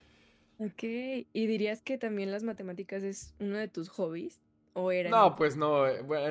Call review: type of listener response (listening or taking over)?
taking over